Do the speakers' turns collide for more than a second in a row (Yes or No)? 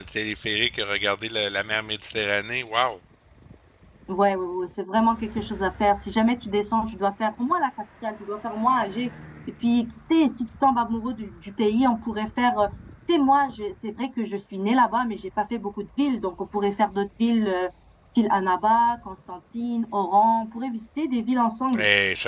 No